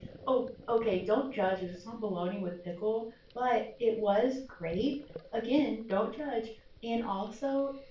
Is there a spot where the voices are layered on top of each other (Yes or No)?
No